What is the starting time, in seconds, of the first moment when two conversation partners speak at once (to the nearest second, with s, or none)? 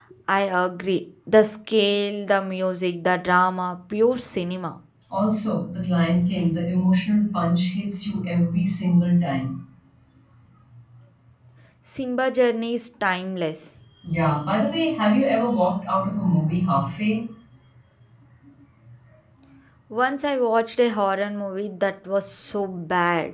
none